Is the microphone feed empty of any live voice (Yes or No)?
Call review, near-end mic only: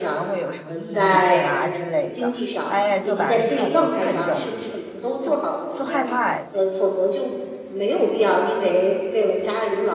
No